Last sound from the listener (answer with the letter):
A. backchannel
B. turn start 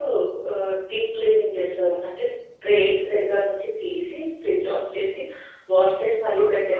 B